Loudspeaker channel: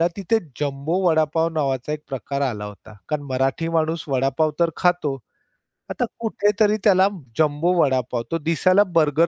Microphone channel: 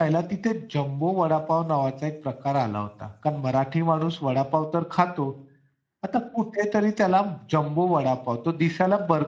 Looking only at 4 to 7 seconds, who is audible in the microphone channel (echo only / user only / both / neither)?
echo only